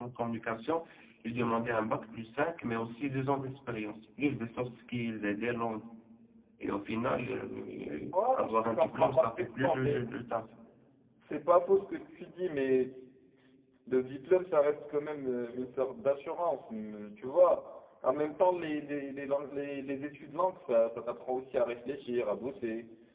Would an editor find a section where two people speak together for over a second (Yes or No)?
Yes